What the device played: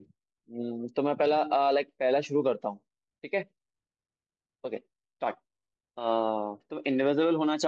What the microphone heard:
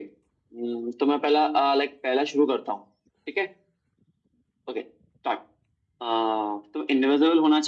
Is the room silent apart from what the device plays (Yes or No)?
Yes